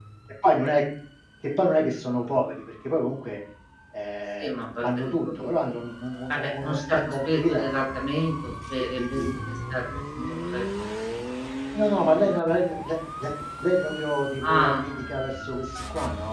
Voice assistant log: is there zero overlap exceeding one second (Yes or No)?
No